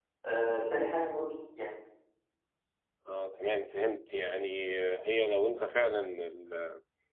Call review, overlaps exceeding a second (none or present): none